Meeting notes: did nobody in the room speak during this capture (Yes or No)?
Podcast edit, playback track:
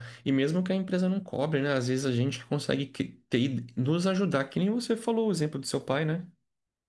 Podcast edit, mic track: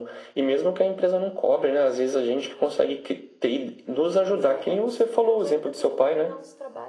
No